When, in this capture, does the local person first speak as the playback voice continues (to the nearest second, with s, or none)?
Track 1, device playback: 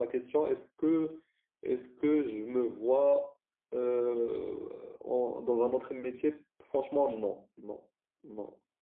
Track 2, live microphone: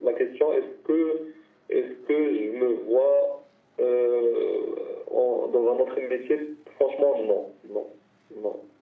none